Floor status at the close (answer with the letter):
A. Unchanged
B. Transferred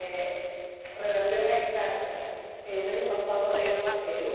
A